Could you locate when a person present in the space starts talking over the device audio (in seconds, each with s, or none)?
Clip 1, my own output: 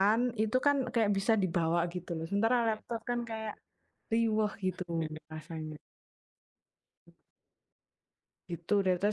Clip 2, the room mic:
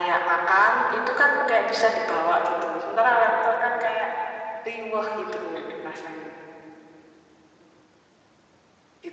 none